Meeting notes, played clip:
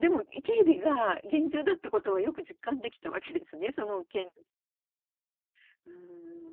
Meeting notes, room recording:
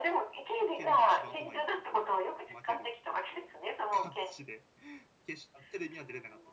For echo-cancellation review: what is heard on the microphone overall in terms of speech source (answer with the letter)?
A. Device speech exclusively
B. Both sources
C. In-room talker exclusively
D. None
B